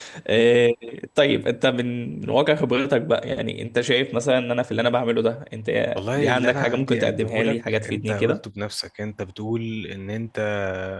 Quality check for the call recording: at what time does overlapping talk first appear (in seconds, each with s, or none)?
6.1 s